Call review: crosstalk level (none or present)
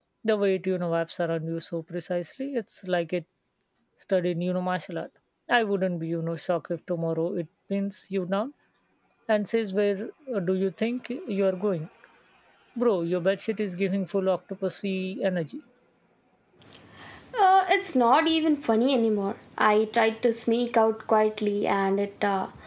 none